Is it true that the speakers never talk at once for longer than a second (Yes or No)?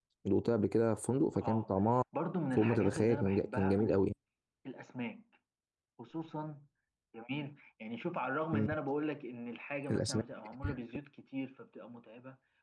No